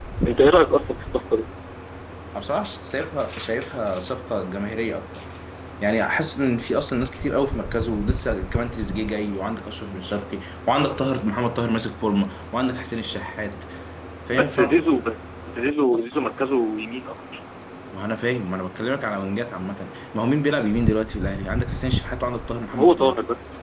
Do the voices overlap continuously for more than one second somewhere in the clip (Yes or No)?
No